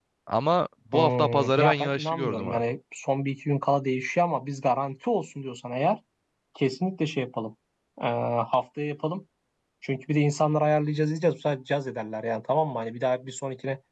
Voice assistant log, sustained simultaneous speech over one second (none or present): present